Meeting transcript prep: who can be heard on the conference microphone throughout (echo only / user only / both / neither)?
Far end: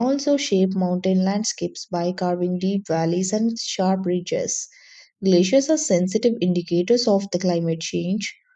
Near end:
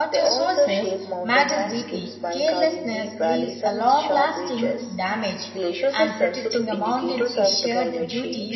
both